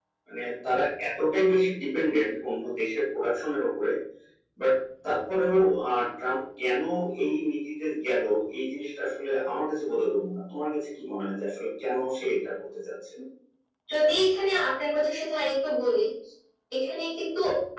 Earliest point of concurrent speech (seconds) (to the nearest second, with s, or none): none